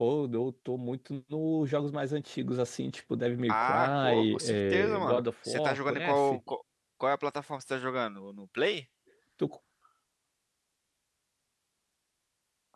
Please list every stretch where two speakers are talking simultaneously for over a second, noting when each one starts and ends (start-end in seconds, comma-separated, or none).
3.5-6.4